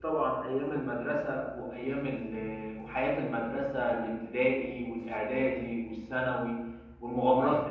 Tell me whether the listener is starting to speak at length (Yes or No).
No